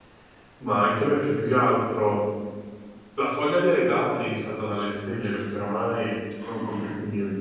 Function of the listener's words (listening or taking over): listening